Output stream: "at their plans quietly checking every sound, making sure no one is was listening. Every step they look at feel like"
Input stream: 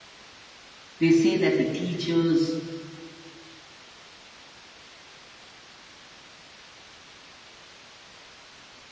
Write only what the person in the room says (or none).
they say that the teachers